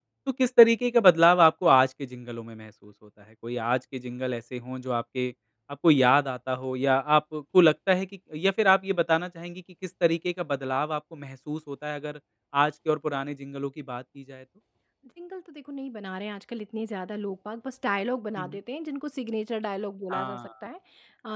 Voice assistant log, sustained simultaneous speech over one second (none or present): none